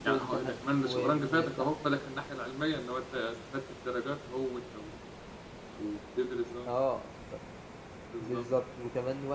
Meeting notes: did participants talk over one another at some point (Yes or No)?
Yes